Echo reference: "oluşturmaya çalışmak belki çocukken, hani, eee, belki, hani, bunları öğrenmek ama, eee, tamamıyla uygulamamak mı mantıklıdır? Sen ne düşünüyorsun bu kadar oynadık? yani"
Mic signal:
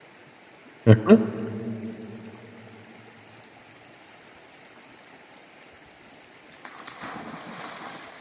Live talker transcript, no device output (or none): Hı hı.